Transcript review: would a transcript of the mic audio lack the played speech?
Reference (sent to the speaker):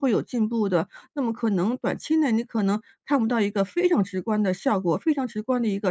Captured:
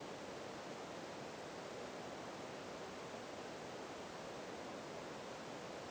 Yes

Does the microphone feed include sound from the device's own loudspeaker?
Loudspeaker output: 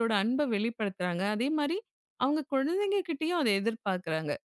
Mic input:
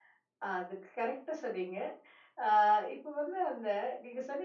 No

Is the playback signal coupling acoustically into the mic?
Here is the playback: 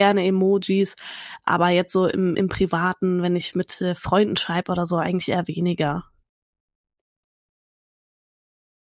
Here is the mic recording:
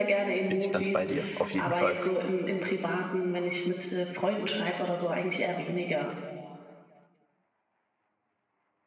Yes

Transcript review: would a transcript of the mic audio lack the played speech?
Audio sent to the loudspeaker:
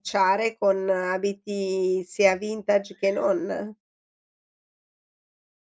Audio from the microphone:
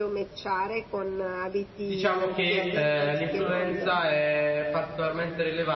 No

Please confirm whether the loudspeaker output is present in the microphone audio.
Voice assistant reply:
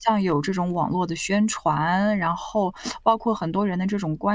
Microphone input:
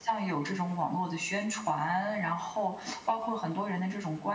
Yes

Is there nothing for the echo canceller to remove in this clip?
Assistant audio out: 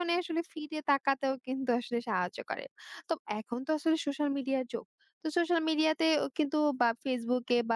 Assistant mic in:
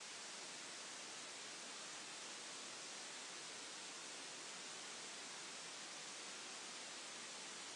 Yes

